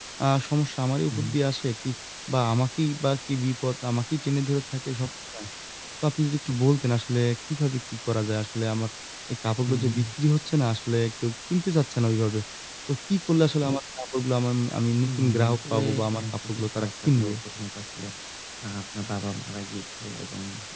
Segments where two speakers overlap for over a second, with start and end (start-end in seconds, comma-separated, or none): 15.1-17.3